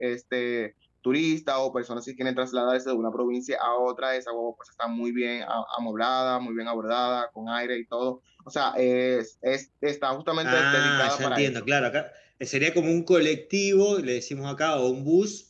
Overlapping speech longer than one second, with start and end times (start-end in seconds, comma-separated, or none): 10.4-11.6